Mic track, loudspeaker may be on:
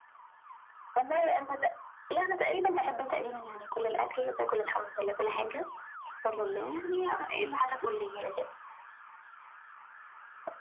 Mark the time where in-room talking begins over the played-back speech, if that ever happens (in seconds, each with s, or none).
none